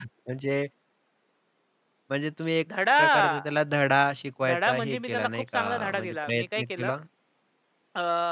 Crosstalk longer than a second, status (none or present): present